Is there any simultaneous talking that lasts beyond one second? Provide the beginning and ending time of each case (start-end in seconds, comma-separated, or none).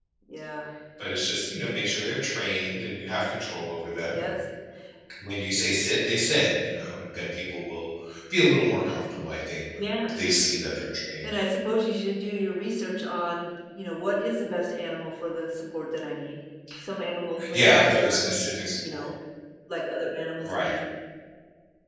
17.5-19.0